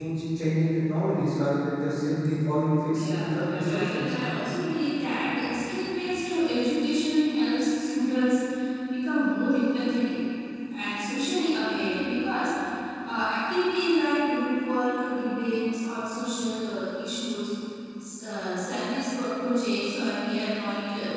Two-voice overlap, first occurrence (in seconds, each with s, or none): 2.9 s